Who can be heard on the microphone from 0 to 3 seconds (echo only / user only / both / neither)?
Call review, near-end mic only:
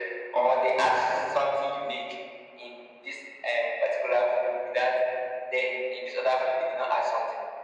echo only